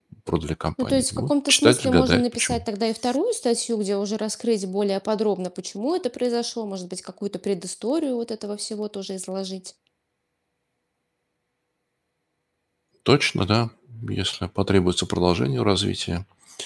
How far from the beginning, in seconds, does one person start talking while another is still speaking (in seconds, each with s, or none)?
0.8 s